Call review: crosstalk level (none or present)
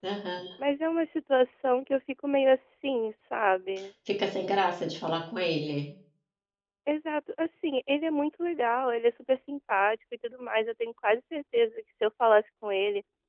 none